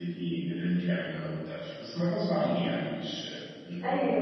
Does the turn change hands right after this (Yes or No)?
Yes